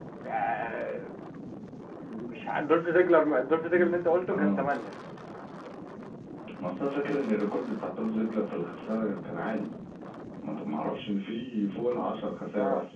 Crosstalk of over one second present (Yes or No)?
No